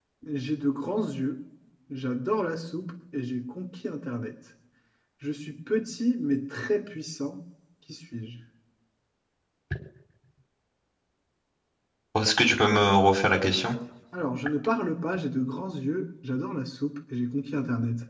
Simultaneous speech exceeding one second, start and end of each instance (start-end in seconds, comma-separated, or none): none